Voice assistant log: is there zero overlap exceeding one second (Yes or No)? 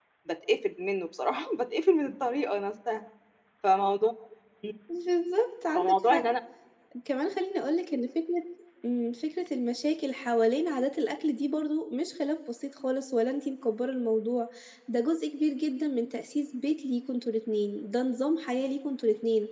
Yes